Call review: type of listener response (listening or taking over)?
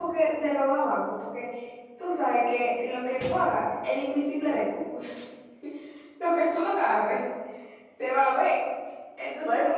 listening